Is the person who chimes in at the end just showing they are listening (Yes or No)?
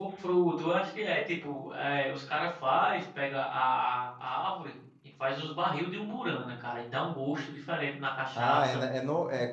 No